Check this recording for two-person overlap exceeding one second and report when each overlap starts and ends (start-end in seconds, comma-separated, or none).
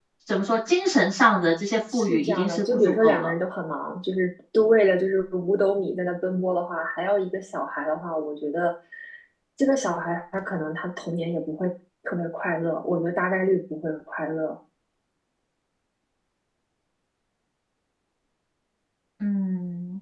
1.9-3.3